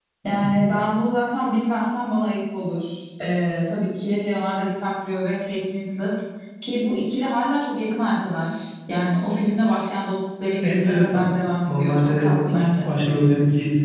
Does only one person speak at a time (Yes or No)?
No